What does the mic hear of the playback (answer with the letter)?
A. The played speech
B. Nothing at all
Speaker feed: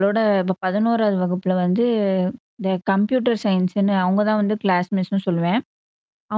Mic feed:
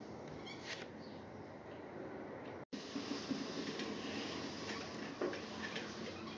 B